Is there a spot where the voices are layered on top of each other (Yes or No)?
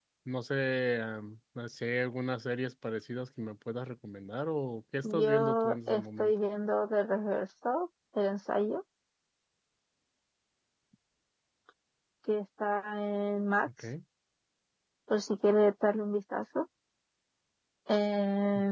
Yes